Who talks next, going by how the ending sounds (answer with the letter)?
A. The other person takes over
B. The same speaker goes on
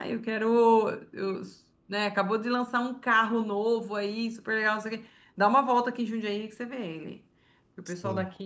B